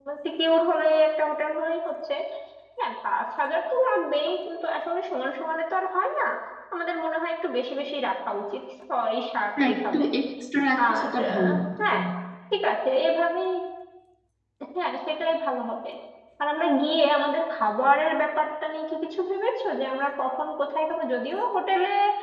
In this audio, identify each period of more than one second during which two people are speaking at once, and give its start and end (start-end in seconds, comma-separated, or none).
10.8-12.0